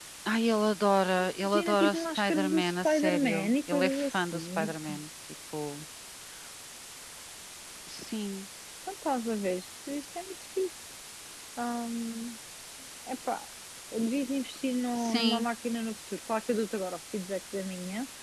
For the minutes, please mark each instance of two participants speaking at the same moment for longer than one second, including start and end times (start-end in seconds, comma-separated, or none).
1.4-4.7